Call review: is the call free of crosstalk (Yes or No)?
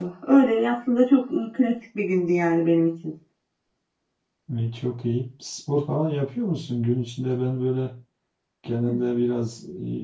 Yes